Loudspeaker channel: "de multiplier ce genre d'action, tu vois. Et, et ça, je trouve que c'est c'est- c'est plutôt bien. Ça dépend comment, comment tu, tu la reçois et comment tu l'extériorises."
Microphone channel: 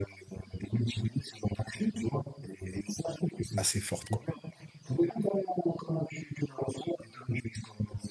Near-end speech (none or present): present